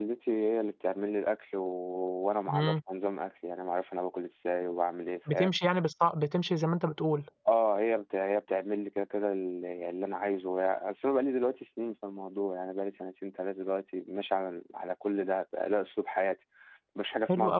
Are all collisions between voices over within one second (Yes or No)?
Yes